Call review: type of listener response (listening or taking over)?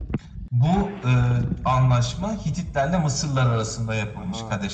listening